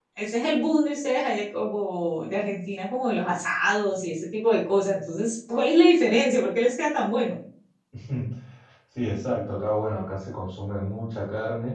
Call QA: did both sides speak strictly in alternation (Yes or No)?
Yes